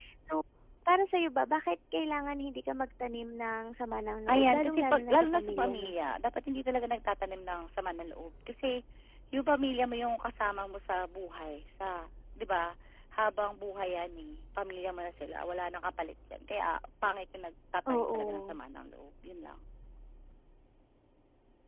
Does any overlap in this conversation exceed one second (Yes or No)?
Yes